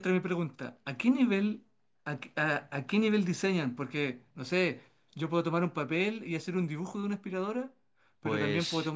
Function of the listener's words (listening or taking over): listening